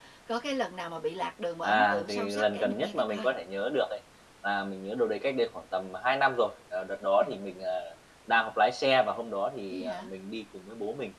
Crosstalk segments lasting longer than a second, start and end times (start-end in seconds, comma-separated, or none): 1.6-3.3